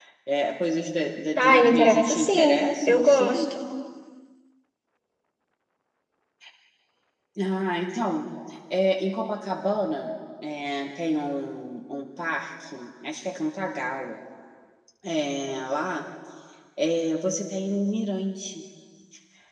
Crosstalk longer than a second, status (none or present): present